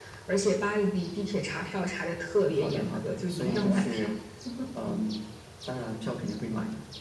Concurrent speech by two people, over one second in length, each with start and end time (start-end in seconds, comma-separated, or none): 2.5-4.1